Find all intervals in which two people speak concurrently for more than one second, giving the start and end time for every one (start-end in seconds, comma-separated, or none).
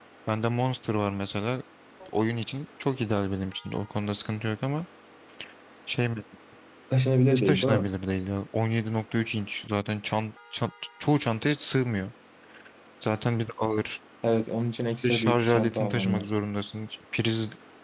15.0-16.3